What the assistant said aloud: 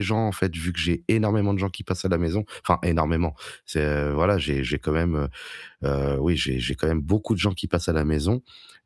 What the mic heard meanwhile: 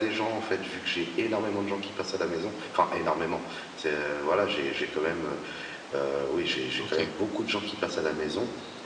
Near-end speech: present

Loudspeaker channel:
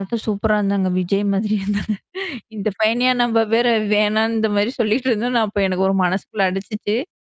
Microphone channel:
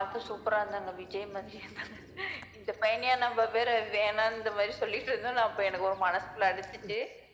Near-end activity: none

